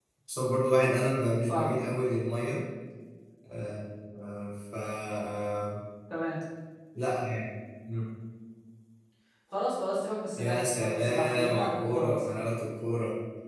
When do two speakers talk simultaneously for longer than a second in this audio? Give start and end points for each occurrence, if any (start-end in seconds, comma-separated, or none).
10.4-12.4